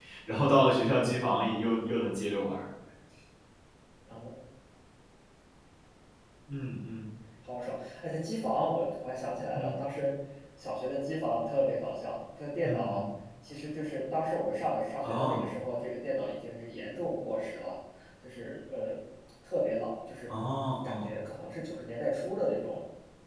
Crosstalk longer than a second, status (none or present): none